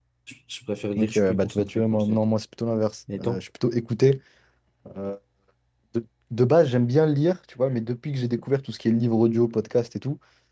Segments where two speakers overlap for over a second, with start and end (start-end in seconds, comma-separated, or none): 1.0-2.2